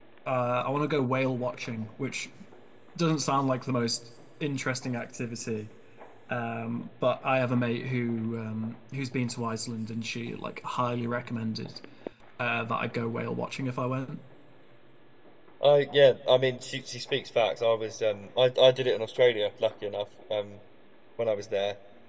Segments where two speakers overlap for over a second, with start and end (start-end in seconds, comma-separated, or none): none